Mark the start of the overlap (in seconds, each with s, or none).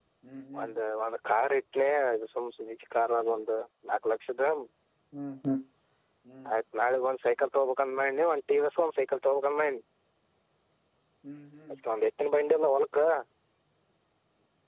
none